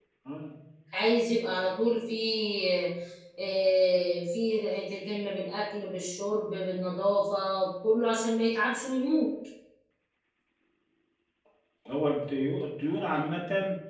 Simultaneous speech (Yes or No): No